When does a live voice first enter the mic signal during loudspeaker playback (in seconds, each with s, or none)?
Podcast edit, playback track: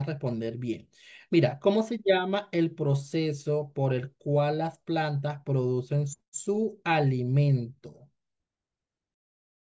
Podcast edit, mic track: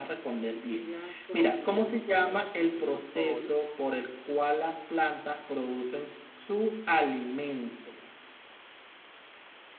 0.6 s